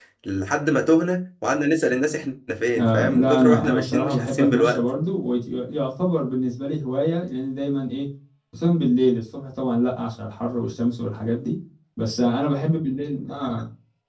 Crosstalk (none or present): present